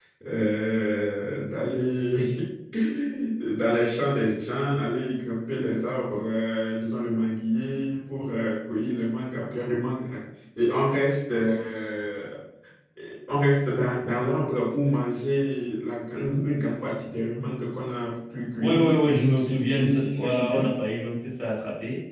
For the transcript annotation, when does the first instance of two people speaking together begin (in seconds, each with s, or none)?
18.6 s